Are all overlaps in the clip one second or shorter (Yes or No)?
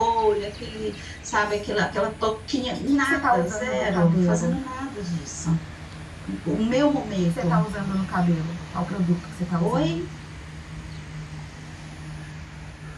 No